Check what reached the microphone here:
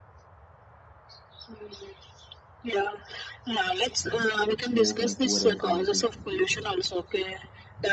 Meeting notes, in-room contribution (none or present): present